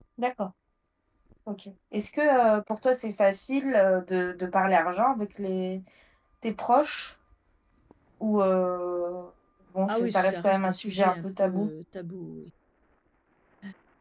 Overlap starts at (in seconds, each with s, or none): 9.9 s